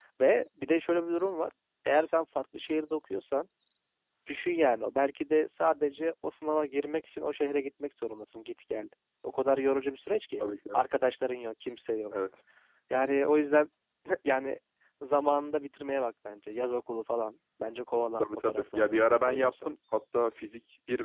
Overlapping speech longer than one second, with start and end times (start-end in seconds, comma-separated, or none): 18.2-19.7